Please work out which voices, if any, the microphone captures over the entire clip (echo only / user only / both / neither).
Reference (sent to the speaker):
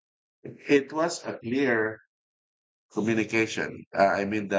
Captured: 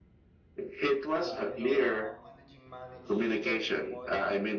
both